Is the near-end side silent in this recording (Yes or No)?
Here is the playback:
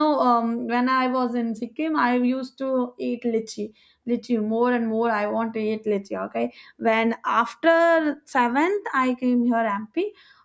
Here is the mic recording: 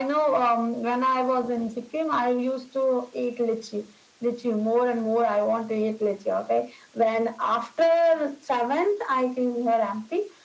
Yes